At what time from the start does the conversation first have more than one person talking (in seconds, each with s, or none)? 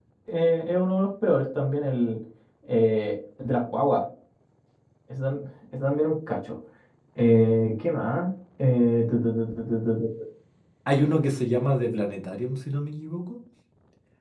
none